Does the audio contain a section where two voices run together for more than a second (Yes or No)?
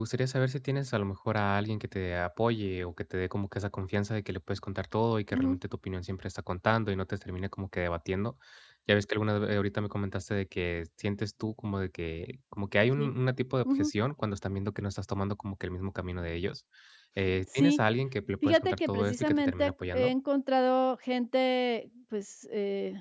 Yes